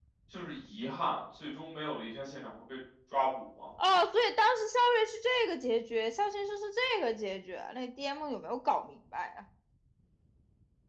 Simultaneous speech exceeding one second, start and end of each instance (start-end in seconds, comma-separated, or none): none